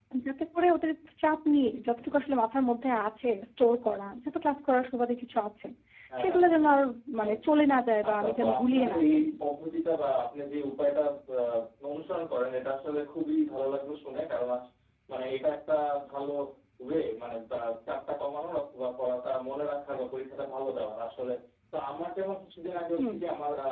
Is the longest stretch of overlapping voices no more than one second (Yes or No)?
No